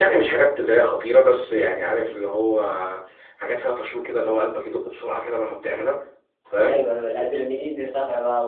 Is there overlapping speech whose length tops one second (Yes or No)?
No